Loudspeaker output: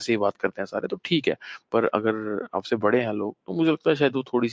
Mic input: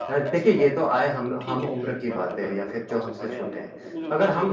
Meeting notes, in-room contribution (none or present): present